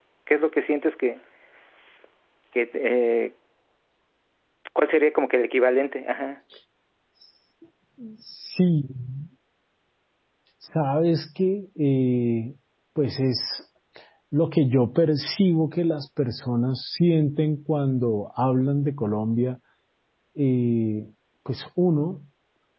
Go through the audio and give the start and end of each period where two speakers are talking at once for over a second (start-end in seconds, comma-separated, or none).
none